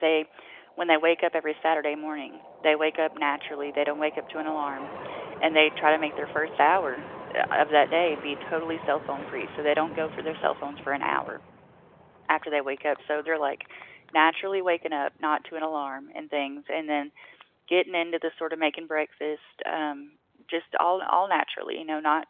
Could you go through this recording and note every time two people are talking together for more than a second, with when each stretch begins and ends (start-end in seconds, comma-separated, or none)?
none